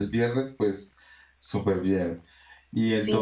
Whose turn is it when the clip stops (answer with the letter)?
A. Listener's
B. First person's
A